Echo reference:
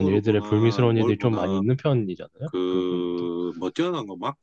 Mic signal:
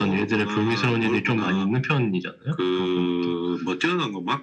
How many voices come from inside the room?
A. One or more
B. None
B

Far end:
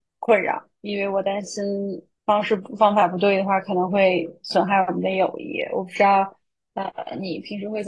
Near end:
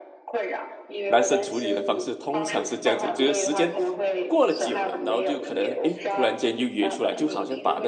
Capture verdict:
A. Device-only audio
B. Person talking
B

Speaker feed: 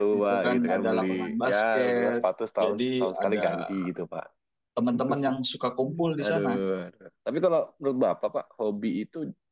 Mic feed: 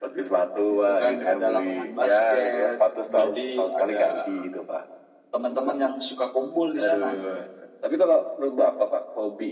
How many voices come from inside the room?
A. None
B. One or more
B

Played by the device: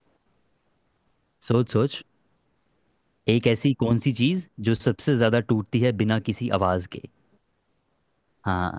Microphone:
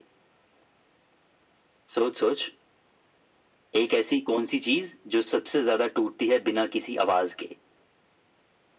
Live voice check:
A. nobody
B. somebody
A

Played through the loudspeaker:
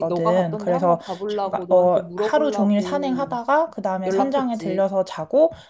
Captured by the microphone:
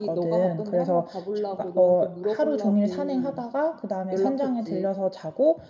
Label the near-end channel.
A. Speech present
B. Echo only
B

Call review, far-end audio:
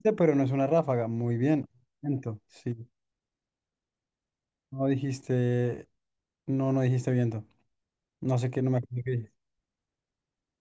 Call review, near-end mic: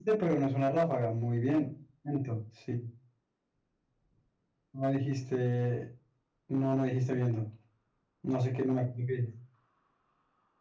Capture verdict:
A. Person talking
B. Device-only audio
B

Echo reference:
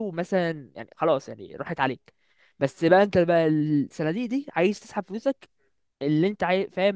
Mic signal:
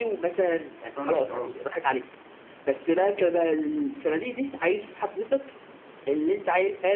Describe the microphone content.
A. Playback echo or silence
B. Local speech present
B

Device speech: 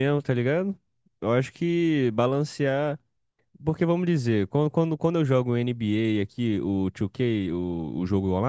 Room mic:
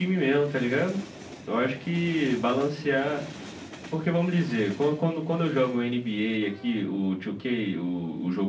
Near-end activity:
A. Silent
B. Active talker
A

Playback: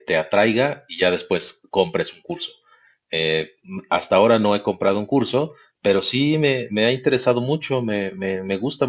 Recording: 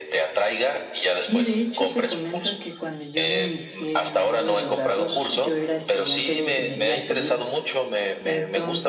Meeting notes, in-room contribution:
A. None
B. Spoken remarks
B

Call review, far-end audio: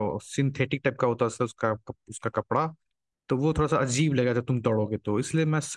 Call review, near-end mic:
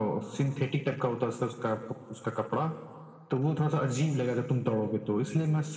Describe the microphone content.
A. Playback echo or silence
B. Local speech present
A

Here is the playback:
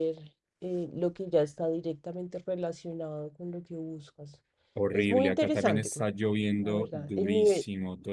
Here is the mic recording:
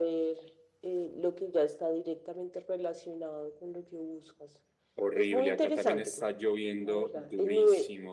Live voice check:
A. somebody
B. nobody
B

